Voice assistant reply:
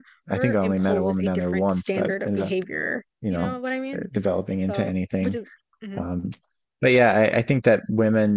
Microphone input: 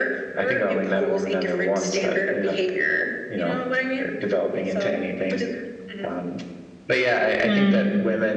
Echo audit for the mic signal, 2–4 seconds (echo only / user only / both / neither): echo only